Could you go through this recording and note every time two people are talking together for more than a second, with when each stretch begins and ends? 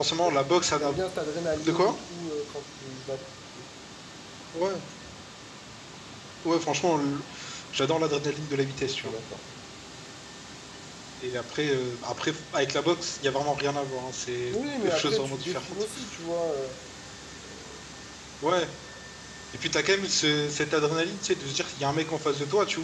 14.5-15.8

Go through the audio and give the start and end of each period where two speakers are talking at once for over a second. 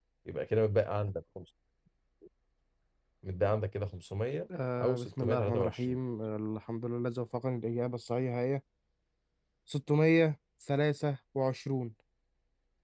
4.8-6.0

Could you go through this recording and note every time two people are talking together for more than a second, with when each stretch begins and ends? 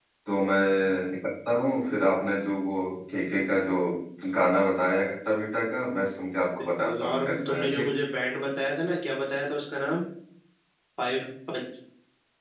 6.6-8.0

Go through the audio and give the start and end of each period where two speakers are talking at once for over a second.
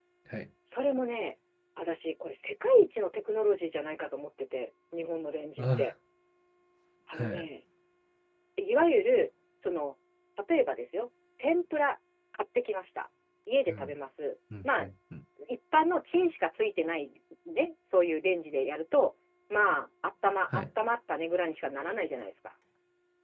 none

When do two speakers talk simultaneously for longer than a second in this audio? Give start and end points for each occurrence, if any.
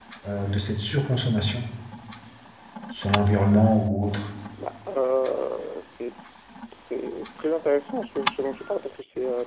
none

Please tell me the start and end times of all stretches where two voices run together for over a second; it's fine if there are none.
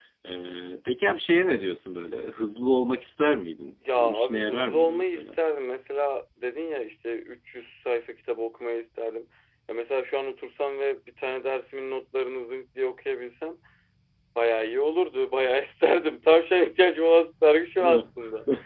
3.9-5.3

